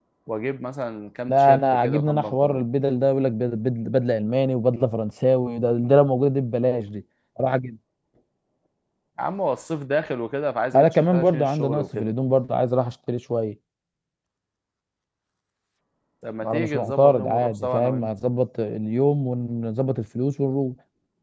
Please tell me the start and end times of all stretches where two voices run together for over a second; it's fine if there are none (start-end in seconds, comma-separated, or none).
1.3-2.6, 10.7-12.1, 16.4-18.1